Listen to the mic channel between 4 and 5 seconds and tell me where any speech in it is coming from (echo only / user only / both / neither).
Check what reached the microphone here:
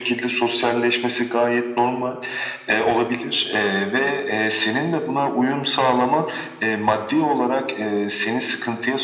echo only